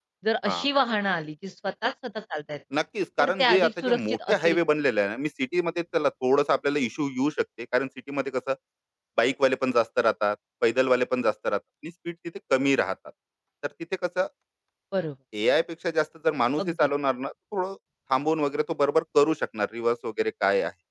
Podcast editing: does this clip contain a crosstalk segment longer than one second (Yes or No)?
Yes